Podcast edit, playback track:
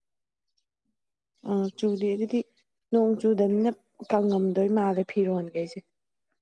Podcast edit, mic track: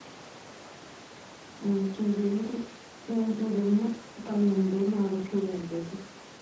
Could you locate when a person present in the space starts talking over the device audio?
none

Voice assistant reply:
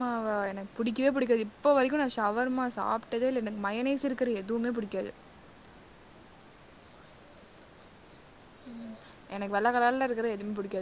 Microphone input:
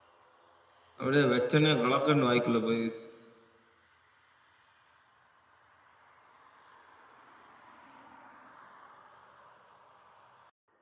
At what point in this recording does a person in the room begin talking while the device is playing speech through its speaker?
1.0 s

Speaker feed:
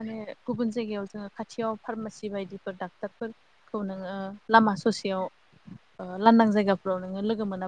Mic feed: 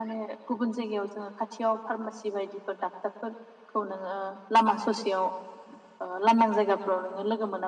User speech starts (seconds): none

